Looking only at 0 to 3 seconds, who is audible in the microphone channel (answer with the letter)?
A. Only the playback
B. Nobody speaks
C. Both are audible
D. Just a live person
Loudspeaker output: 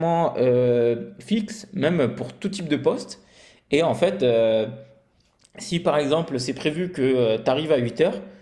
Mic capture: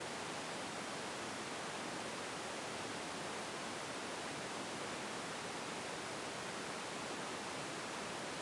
B